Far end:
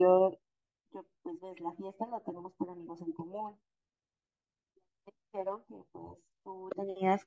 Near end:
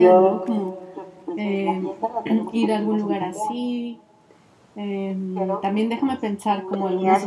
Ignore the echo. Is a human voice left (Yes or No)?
Yes